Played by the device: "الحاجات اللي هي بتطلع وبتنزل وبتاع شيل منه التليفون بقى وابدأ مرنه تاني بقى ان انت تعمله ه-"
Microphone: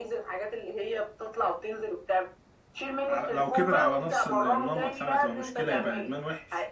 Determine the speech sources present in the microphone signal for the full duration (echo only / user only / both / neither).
both